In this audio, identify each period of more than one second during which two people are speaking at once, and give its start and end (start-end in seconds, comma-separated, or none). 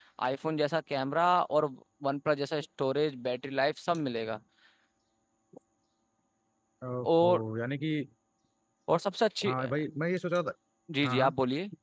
none